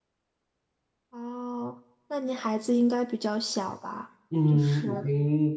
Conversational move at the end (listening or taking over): taking over